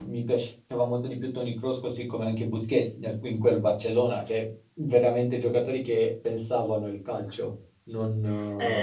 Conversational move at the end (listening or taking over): taking over